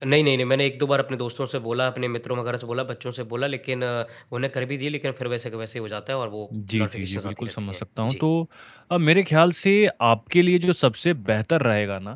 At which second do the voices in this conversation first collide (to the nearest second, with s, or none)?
7 s